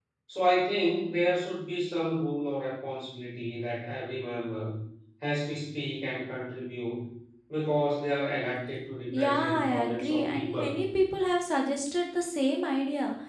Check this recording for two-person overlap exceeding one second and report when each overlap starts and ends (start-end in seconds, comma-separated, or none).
9.1-10.7